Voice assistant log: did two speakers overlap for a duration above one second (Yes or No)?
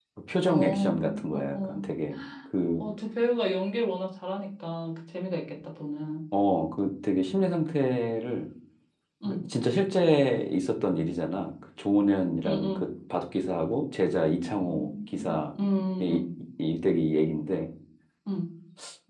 Yes